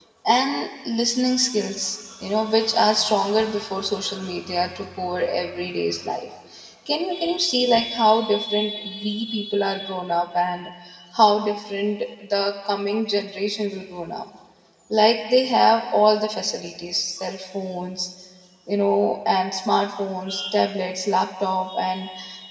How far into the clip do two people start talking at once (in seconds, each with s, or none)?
none